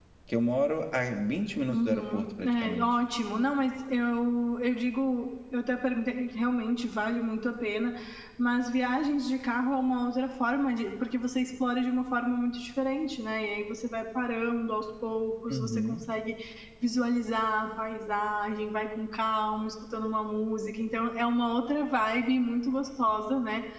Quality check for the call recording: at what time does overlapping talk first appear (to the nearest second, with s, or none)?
2 s